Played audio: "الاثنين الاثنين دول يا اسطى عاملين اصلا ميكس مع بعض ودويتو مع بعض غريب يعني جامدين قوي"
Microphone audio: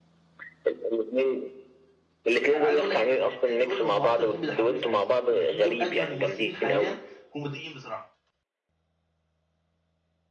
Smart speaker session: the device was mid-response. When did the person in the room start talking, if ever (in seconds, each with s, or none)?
2.6 s